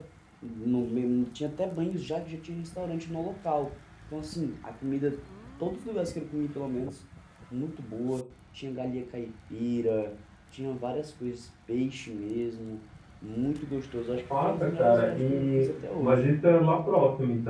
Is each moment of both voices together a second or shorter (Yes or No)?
No